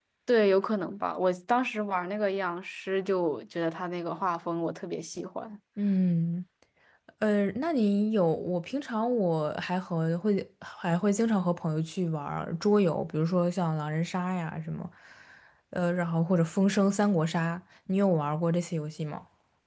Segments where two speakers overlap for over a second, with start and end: none

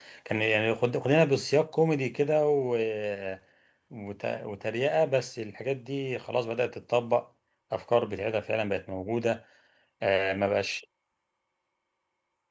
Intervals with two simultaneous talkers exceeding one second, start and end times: none

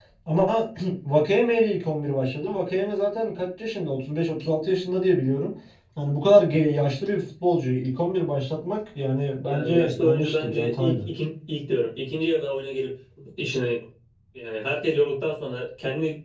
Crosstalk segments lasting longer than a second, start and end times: 9.4-11.1

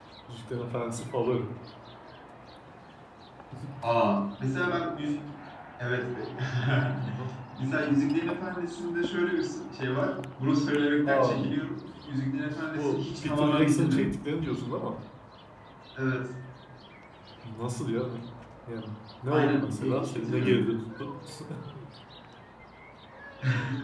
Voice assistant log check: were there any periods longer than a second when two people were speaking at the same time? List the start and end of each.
12.8-14.1, 19.3-20.6

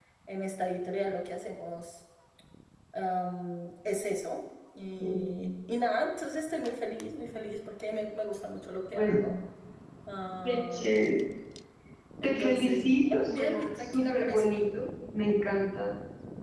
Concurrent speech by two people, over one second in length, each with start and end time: 12.2-14.5

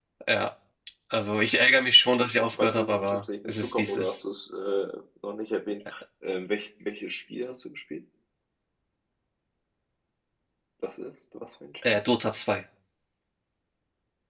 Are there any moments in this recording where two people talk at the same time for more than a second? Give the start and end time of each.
2.2-4.2

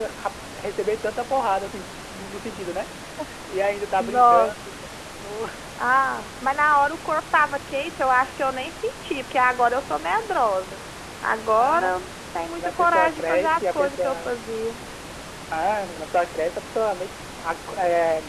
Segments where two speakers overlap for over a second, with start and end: 12.6-14.3

